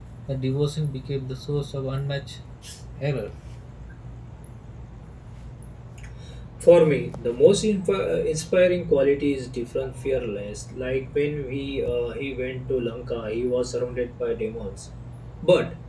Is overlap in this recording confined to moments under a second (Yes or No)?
Yes